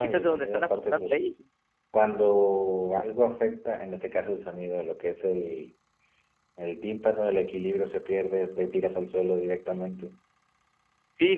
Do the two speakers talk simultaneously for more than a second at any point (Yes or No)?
Yes